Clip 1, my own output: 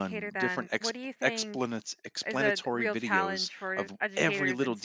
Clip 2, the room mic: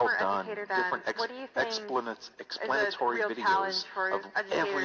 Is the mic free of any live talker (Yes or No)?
Yes